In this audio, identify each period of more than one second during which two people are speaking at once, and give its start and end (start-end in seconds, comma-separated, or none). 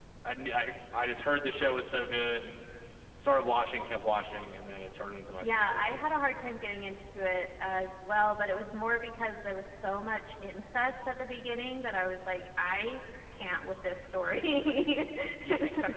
none